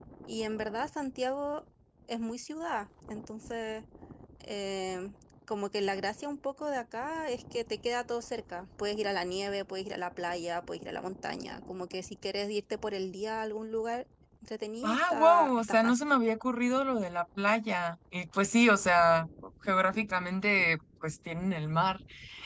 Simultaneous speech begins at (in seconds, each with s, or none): 14.8 s